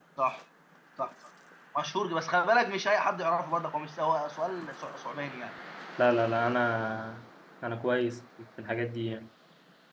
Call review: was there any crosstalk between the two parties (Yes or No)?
No